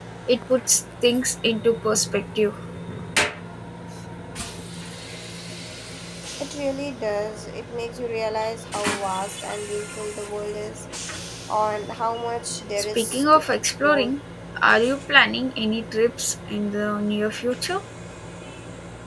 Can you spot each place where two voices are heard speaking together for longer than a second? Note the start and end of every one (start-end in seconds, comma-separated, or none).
12.8-14.1